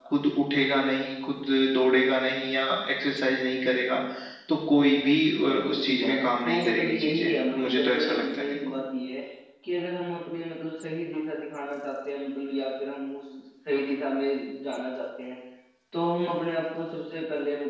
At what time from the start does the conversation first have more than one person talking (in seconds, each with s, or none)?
5.5 s